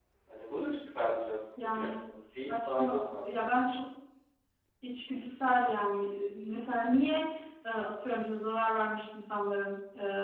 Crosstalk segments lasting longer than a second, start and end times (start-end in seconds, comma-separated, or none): 1.6-3.1